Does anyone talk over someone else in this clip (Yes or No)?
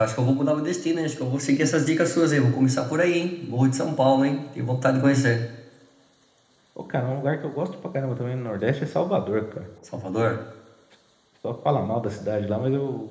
No